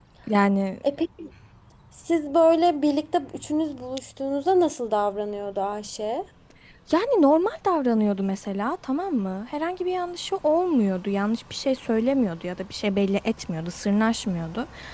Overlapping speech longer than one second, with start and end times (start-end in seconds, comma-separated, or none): none